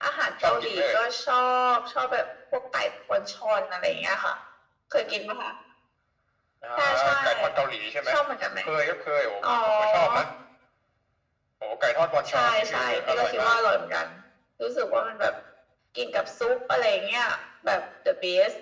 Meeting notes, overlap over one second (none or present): present